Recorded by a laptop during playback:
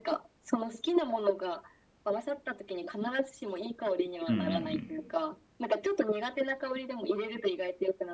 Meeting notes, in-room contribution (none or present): present